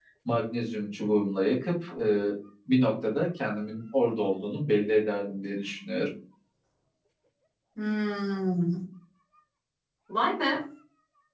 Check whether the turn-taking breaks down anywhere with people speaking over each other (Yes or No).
No